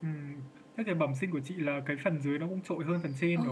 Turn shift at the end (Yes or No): Yes